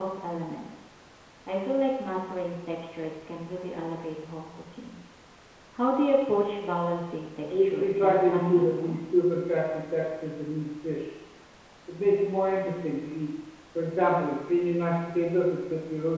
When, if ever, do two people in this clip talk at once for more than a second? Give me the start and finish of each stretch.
7.5-9.0

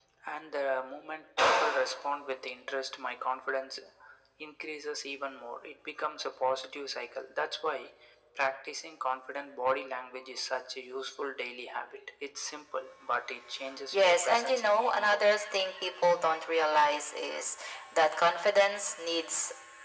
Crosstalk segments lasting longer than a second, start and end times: 13.9-15.3

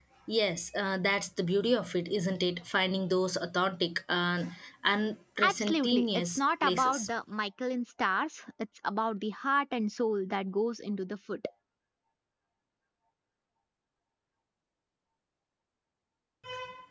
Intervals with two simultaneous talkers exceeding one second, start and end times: 5.4-7.1

